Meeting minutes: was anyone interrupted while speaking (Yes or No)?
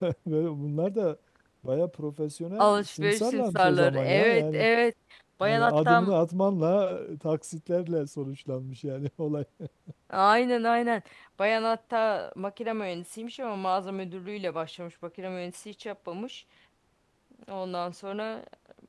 Yes